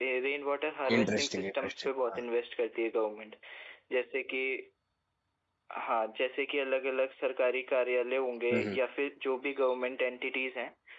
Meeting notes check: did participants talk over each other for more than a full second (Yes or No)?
Yes